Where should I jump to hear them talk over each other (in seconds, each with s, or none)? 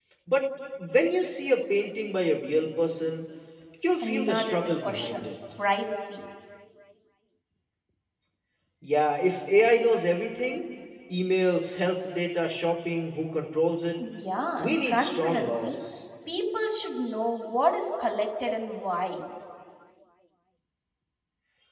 4.0 s